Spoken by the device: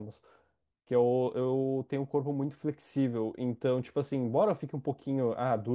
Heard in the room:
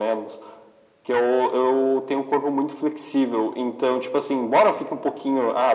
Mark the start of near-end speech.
none

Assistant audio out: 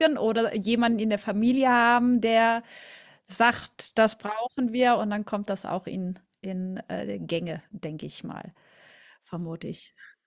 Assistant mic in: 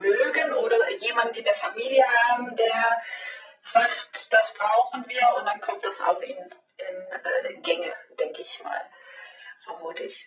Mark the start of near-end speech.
none

